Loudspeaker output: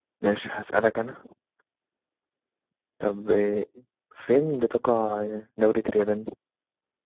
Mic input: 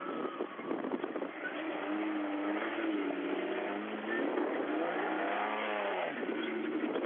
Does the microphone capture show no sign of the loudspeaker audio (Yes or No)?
Yes